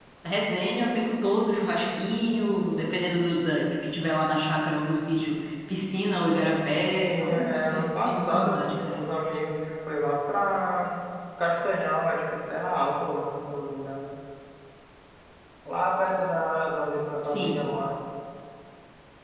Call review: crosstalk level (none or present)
present